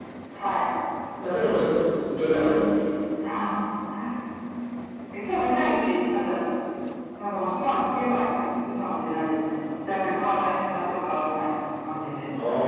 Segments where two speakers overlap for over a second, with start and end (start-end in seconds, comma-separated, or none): none